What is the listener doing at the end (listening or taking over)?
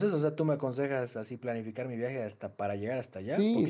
listening